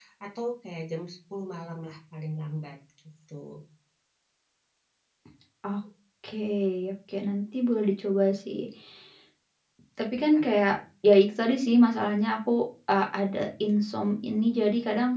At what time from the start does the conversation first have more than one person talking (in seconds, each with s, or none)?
none